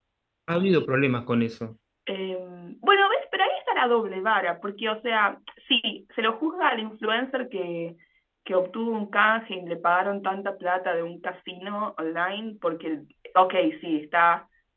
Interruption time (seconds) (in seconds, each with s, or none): none